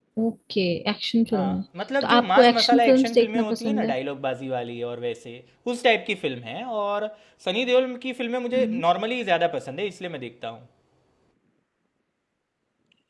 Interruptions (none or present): present